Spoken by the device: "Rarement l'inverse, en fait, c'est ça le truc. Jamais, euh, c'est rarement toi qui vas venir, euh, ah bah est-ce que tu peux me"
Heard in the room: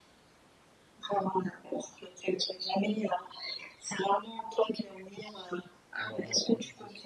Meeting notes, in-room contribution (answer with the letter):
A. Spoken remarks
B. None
A